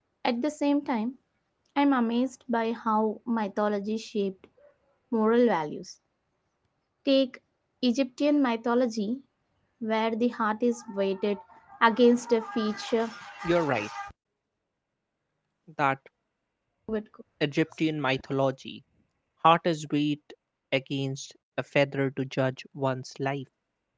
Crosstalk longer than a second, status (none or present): none